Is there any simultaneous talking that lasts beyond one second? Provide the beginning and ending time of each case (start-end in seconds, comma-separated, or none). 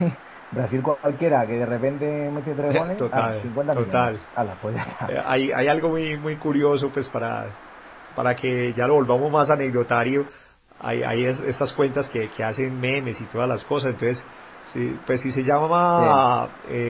2.7-4.1